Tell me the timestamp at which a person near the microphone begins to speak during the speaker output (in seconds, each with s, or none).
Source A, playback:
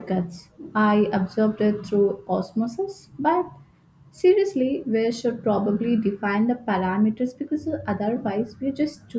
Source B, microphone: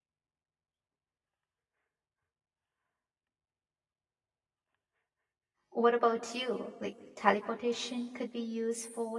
5.7 s